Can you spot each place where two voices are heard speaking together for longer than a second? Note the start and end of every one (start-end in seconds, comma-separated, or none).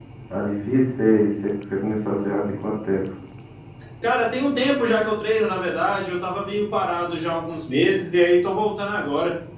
none